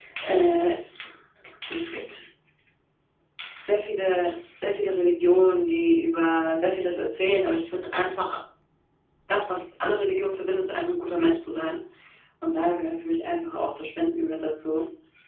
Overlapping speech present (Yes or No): No